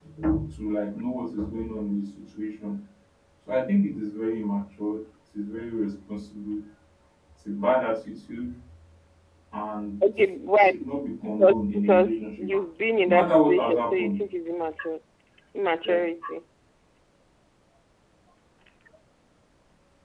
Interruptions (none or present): present